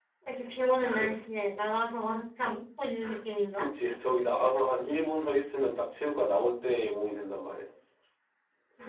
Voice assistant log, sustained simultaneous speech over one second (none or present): none